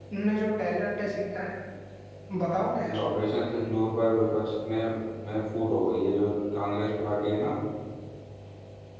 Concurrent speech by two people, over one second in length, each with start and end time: none

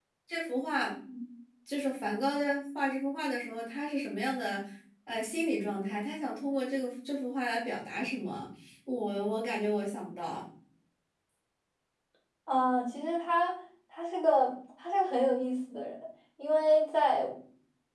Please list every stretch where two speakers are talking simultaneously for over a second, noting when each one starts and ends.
none

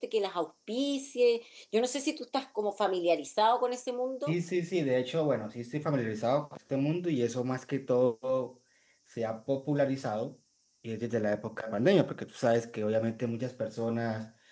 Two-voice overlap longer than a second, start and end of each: none

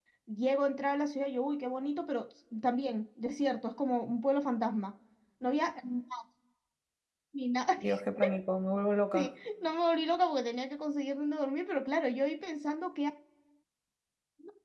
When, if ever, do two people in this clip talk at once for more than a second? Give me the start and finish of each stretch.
none

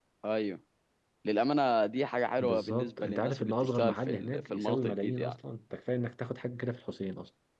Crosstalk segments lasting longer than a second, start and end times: 2.4-5.4

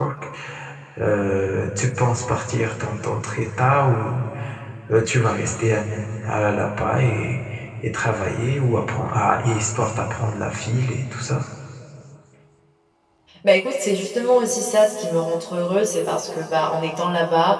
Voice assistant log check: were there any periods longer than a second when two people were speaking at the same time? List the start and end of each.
none

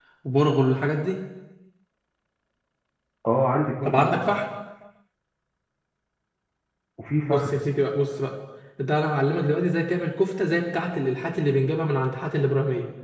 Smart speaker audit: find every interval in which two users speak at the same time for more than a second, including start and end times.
none

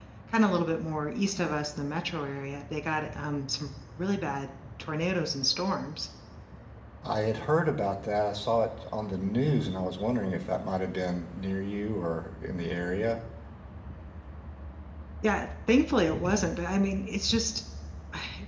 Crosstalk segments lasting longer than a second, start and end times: none

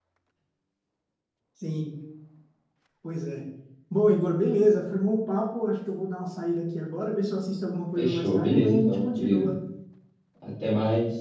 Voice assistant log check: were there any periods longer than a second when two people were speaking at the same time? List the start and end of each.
8.0-9.5

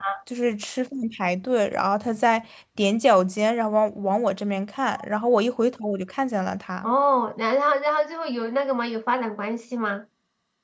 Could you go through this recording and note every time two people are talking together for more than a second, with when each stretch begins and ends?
none

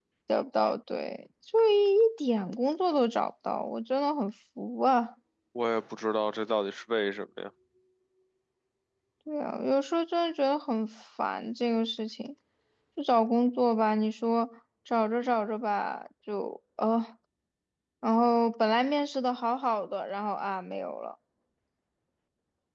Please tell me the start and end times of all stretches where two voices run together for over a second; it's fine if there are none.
none

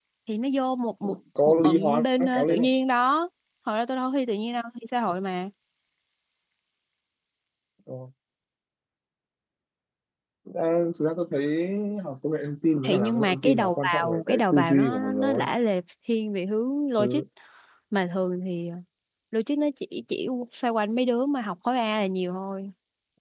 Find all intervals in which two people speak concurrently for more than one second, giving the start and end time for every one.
1.5-2.7, 12.9-15.5

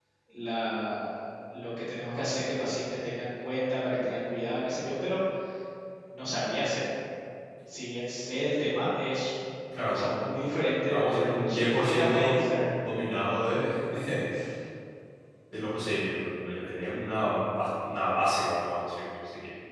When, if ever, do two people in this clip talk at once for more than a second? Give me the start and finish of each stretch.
10.9-12.4

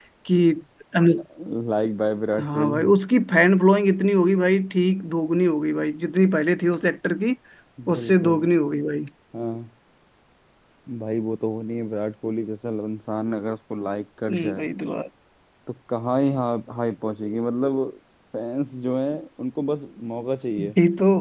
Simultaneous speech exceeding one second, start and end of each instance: none

